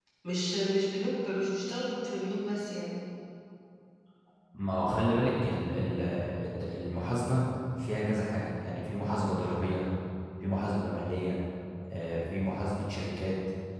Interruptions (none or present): none